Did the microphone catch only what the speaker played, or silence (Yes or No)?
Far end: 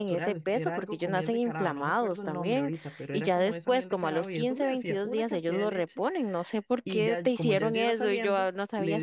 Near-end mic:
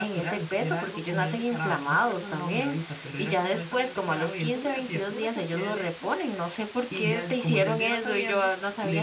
Yes